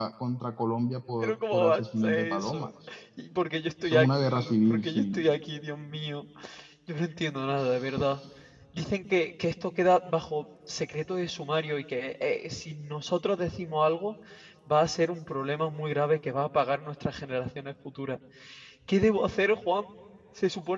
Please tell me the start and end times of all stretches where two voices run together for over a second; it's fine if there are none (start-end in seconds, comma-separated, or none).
1.2-2.7, 3.8-5.2